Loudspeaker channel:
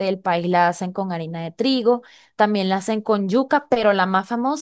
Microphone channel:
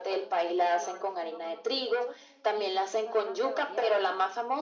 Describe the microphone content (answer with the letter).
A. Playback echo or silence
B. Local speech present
B